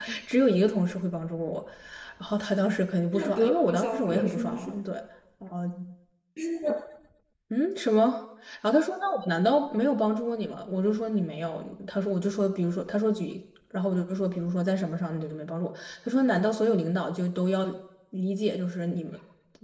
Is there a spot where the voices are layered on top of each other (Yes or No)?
Yes